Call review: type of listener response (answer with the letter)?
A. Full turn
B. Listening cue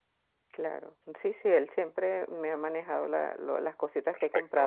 B